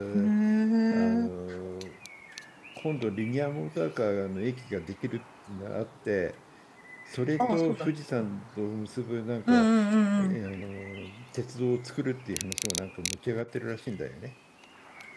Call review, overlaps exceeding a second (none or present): none